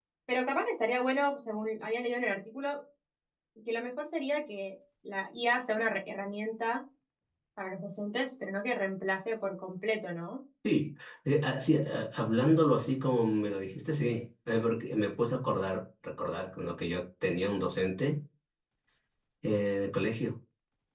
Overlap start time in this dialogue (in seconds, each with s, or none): none